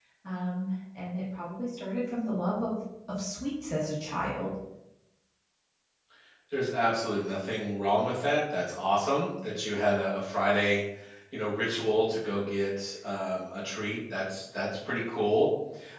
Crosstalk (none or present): none